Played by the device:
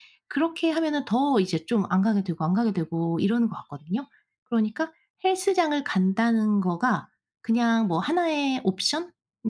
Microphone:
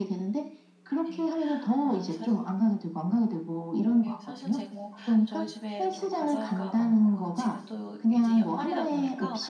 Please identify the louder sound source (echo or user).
echo